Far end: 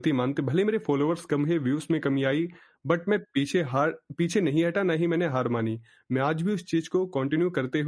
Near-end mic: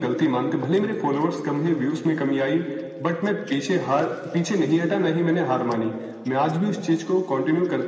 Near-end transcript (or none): none